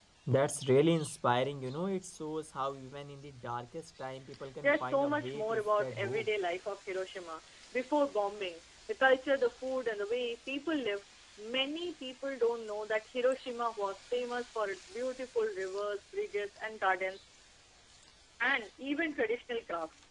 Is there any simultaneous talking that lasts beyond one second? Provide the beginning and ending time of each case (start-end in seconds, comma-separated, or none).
4.6-6.3